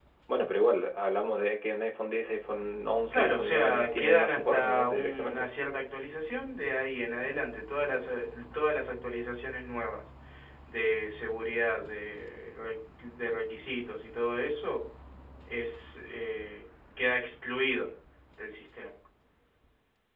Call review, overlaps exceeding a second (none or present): present